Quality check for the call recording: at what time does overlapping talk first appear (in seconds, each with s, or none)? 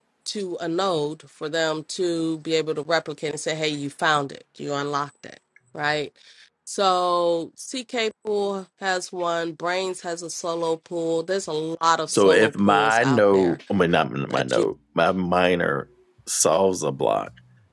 12.1 s